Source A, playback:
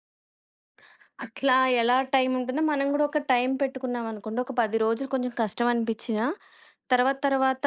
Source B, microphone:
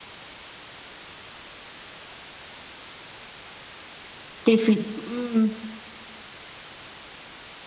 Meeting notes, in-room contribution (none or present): present